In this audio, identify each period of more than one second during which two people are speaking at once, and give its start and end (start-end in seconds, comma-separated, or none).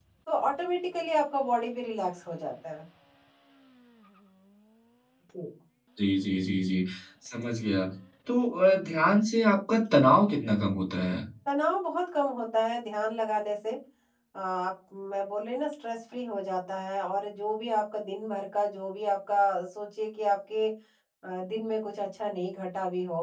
none